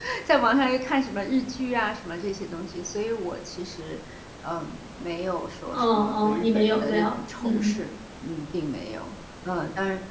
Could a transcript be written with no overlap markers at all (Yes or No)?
No